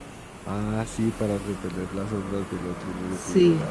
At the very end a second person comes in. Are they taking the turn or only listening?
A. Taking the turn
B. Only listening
A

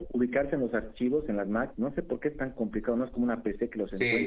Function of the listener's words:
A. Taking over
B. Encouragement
A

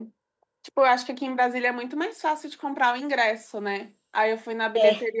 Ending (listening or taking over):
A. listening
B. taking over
A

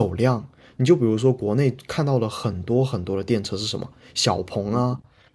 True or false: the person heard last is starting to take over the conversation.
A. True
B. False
B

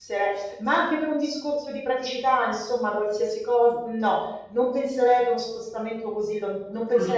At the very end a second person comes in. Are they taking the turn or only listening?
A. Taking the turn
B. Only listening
B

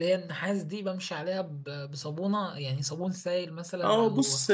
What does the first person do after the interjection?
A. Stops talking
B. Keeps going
A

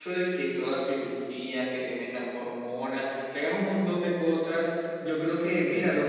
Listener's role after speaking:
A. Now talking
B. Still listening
B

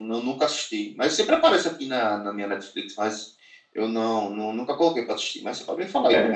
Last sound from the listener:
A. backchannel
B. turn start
B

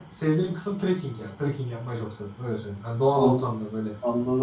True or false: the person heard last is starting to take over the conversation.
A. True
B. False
A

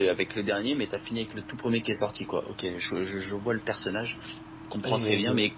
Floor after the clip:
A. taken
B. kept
B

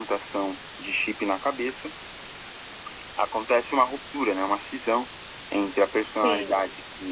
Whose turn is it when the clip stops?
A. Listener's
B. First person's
B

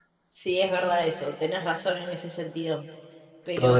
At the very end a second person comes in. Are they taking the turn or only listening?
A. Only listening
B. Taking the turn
B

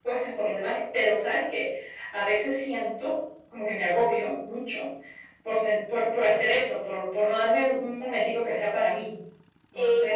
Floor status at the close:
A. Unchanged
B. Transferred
B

